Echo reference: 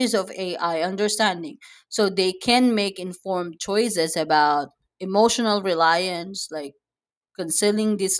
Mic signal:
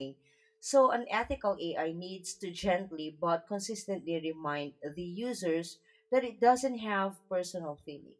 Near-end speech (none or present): present